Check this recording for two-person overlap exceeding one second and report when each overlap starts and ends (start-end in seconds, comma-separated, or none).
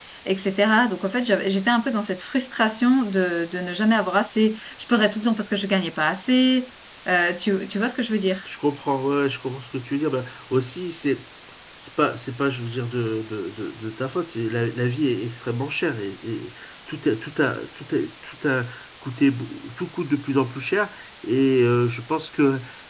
none